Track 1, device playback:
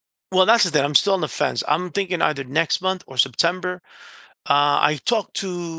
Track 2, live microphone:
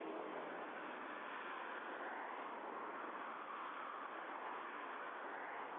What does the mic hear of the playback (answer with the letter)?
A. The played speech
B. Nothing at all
B